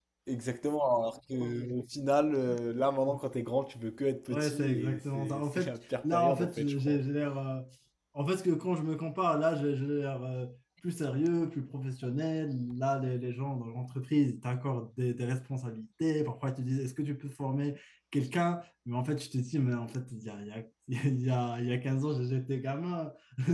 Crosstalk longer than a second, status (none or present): present